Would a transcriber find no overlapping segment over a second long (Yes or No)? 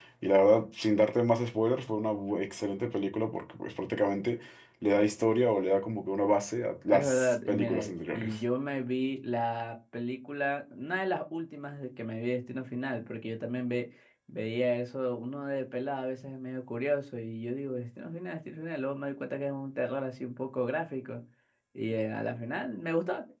No